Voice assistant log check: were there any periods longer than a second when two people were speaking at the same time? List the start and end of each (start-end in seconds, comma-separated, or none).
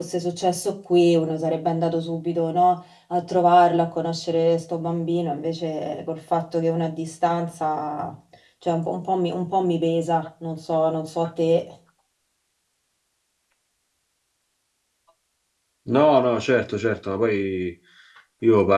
none